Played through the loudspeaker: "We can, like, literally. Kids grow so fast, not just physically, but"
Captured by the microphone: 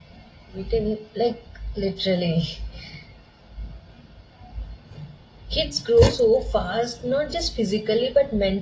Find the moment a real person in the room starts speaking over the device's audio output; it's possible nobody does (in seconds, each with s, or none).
none